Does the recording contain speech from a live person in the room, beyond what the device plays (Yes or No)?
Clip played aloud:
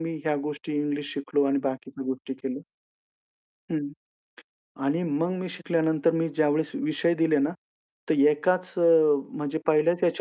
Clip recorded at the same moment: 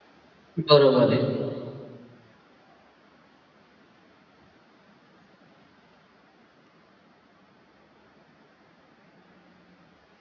Yes